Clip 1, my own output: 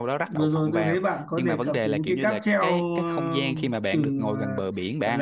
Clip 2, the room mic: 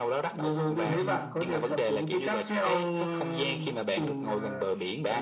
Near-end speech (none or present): present